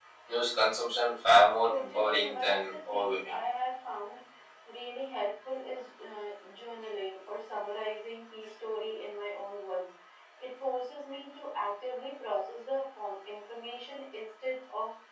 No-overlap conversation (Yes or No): No